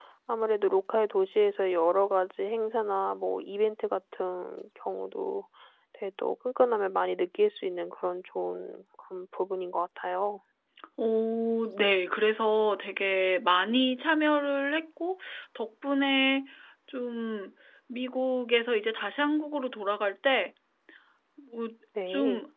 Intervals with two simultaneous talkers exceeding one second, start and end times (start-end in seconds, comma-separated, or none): none